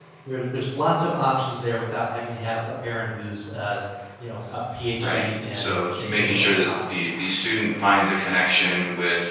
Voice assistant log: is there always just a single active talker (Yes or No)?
No